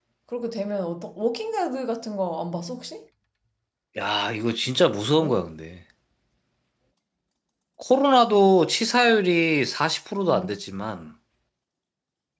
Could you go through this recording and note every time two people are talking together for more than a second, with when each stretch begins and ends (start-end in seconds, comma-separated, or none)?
none